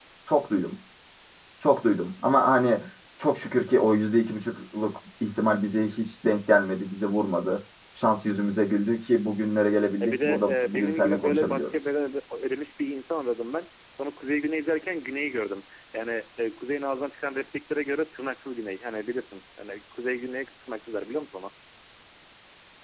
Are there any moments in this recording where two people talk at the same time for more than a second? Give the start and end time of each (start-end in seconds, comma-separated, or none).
10.0-11.8